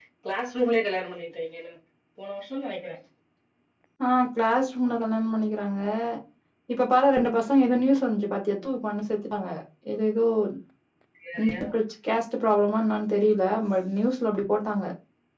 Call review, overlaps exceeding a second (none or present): none